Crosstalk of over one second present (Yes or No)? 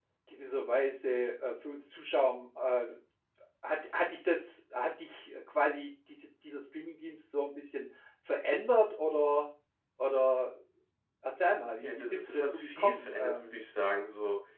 Yes